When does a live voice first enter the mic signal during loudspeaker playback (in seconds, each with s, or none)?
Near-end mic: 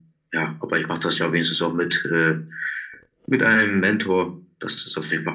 none